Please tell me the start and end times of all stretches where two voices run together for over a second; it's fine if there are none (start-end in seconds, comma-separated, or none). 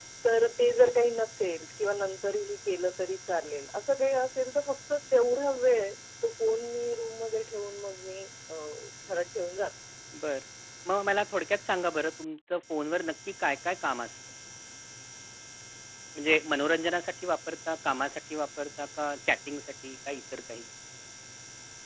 none